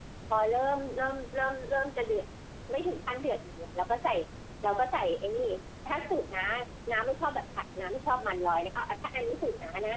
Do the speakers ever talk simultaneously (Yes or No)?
No